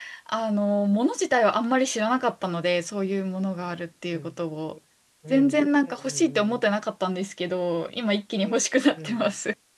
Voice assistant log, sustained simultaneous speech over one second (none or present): present